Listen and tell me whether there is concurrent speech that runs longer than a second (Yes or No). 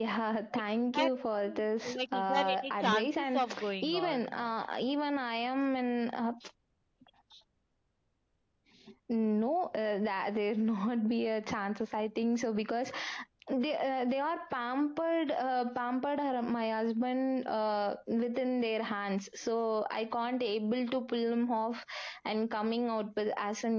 Yes